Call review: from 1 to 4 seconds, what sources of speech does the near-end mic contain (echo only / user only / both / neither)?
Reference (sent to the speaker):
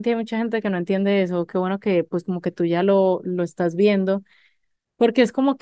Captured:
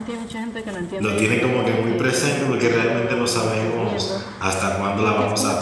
both